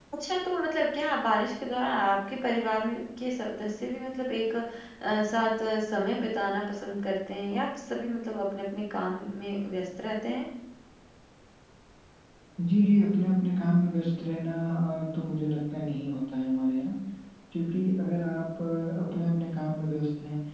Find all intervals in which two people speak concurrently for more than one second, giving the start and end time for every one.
none

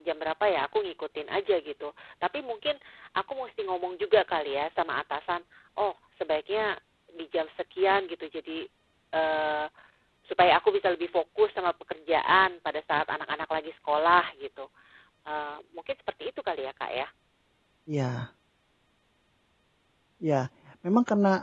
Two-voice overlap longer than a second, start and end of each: none

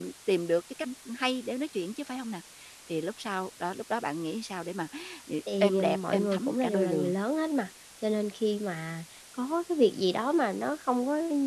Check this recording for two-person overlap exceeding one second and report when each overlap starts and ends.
5.6-7.1

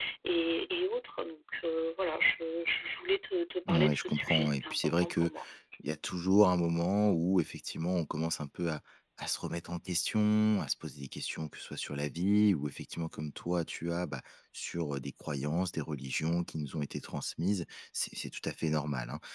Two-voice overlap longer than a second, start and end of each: 3.7-5.3

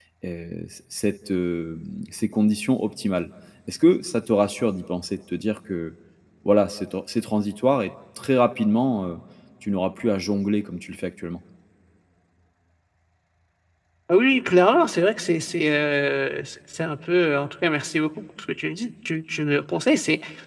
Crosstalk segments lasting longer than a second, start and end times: none

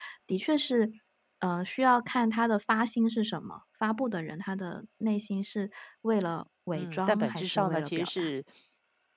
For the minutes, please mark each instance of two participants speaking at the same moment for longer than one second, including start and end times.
6.7-8.3

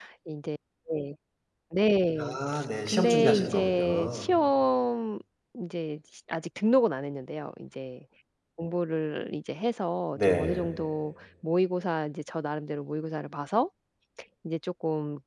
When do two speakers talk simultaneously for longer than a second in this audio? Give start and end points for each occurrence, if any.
2.9-4.3

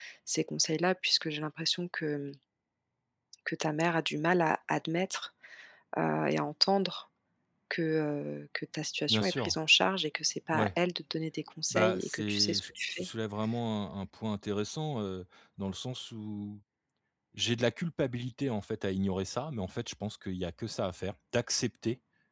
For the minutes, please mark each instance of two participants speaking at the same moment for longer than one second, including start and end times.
11.7-13.1

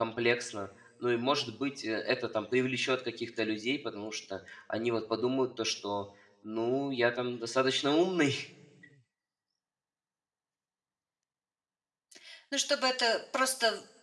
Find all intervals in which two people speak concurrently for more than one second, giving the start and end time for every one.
none

